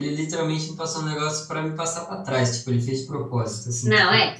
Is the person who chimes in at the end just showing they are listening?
No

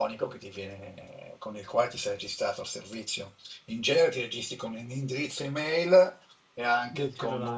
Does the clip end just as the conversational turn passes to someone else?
No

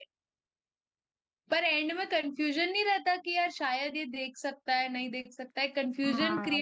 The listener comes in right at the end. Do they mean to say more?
Yes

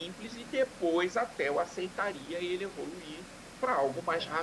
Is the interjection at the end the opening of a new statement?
No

